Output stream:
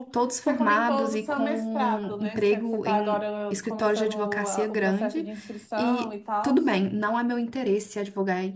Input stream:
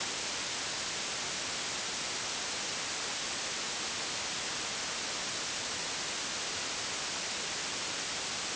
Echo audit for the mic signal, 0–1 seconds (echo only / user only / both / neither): neither